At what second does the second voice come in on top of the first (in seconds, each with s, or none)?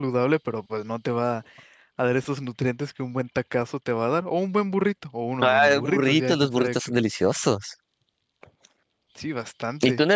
5.4 s